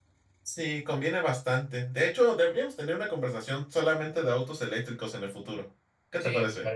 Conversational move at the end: taking over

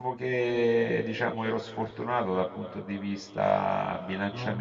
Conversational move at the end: listening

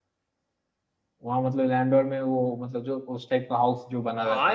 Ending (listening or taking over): taking over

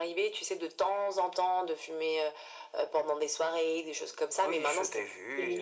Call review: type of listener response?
taking over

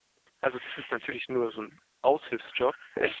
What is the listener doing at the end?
listening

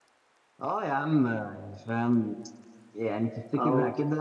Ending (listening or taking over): listening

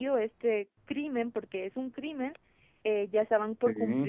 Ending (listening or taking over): listening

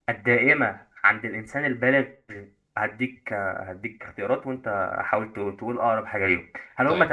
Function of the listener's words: listening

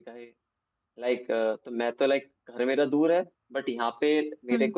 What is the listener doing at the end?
listening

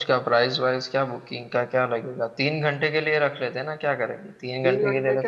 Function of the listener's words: taking over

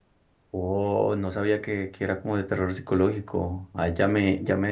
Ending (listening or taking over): listening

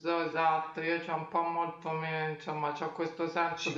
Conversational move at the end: listening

